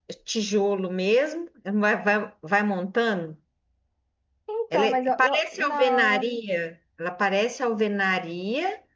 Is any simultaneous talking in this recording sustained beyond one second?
Yes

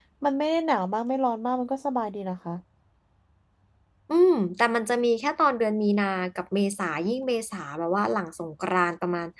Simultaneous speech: No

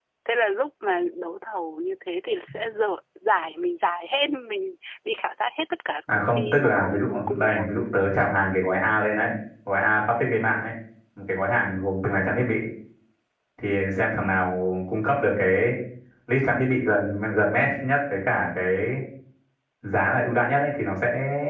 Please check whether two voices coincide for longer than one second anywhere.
Yes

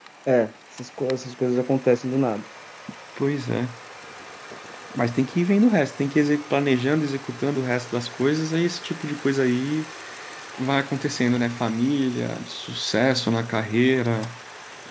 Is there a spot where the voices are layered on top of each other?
No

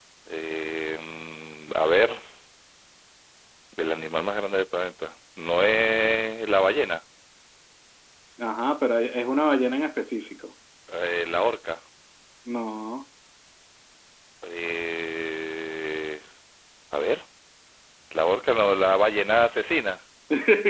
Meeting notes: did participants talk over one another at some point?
No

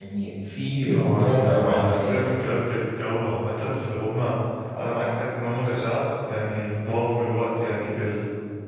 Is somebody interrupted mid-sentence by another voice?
Yes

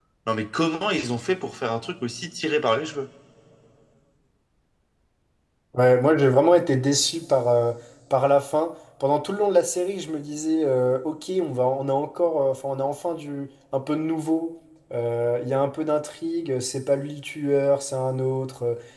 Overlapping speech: No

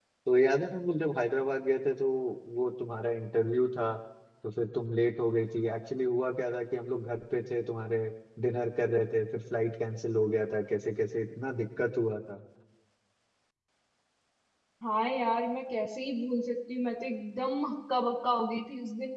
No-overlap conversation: Yes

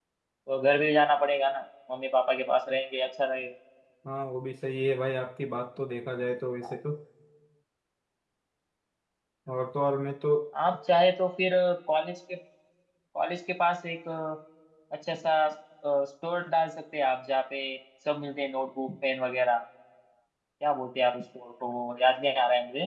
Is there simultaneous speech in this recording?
No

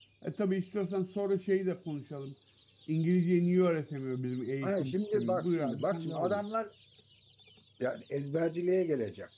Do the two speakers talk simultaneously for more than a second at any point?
Yes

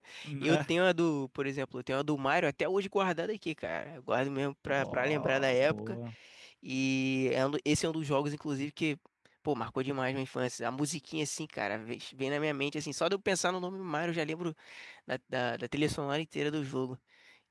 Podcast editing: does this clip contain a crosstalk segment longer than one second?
Yes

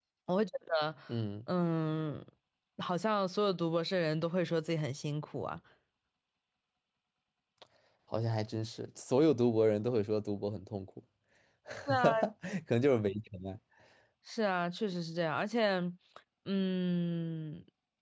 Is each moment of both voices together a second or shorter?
Yes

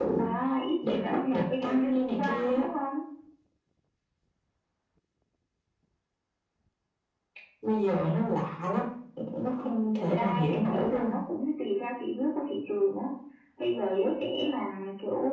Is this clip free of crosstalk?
No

